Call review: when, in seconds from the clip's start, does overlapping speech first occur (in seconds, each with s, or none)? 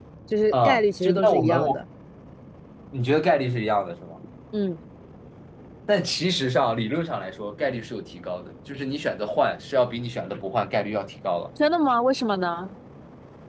0.5 s